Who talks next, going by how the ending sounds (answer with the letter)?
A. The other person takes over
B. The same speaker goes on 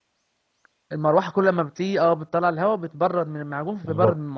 A